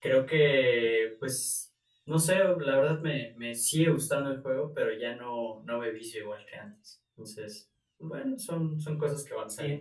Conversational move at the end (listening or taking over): taking over